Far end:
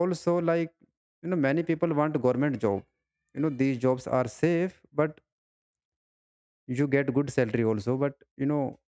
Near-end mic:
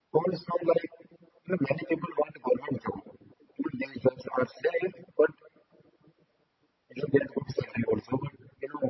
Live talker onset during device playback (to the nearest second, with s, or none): none